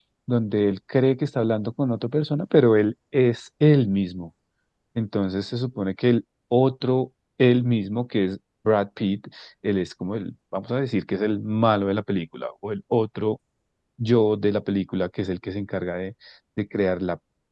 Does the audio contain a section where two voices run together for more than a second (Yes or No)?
No